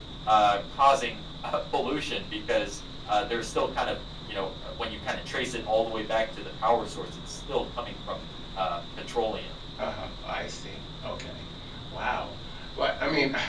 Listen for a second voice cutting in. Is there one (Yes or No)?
No